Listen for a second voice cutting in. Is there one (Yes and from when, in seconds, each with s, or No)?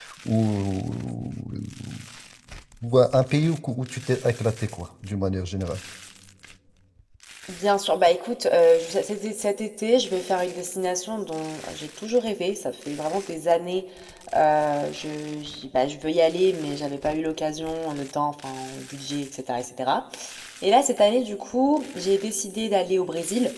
No